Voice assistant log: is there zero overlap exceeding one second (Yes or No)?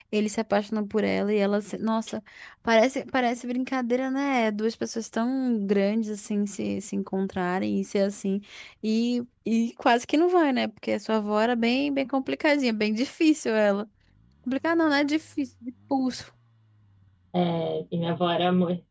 Yes